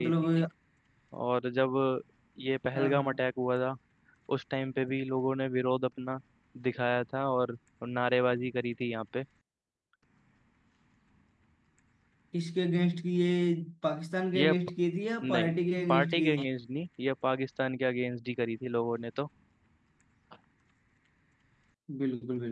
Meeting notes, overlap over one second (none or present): none